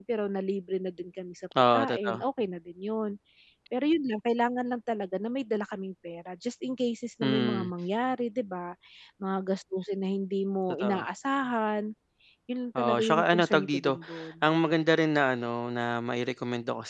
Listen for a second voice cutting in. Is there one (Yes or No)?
Yes